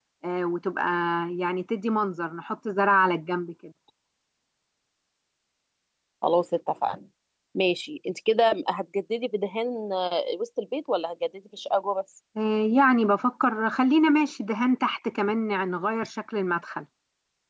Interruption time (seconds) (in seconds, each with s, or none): none